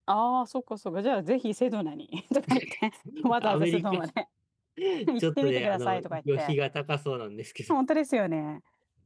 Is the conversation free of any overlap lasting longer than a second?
No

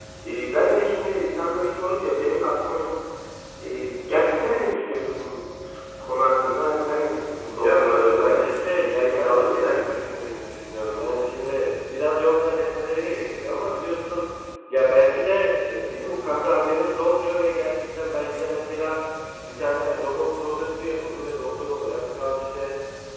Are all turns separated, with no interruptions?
No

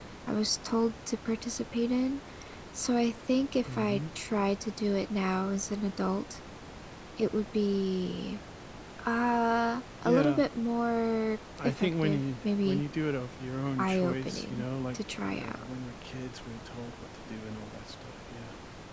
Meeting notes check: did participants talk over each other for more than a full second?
Yes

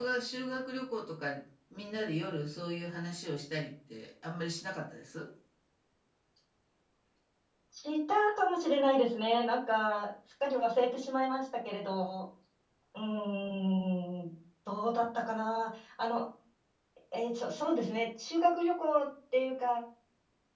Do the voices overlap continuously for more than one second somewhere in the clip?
No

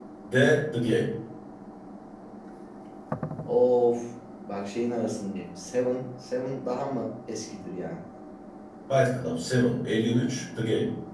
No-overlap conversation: Yes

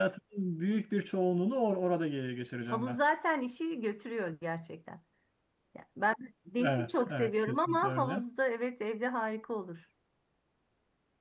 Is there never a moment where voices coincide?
No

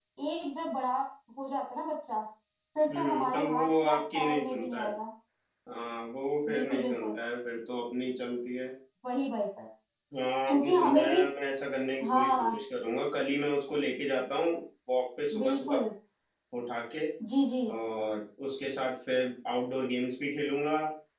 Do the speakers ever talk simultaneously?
Yes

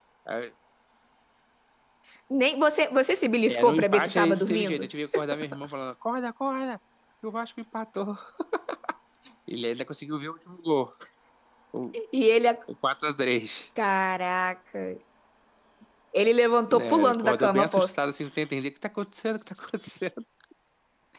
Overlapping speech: Yes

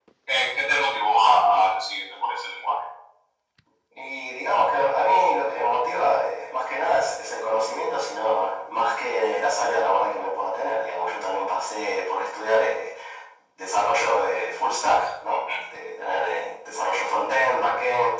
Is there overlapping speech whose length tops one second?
No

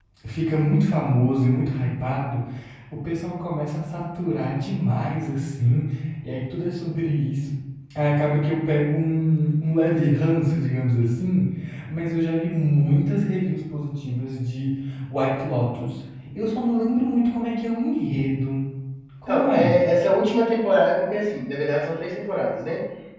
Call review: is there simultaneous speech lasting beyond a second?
No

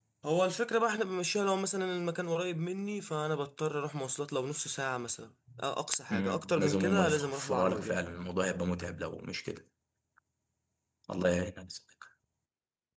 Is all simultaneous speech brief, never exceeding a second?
No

